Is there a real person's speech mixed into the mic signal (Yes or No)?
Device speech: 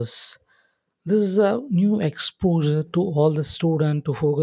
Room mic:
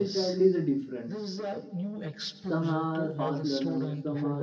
Yes